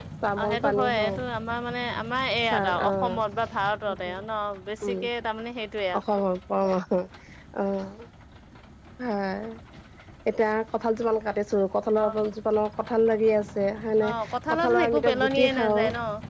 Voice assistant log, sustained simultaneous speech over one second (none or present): present